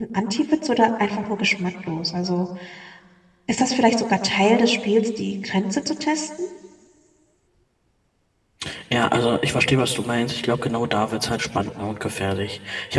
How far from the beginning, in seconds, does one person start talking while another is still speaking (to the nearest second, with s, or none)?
none